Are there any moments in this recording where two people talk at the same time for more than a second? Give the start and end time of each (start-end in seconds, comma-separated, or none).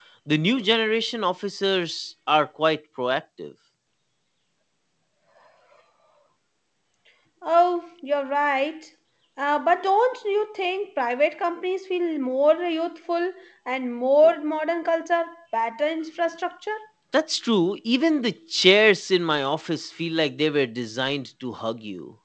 none